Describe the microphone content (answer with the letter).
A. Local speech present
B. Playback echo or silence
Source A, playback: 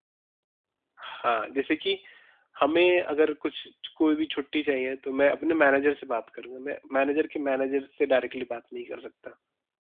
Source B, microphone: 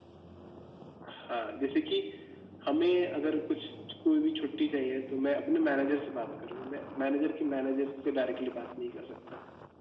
B